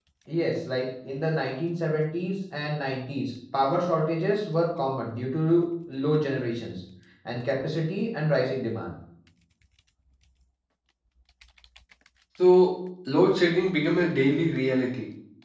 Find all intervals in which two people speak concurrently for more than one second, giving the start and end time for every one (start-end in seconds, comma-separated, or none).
none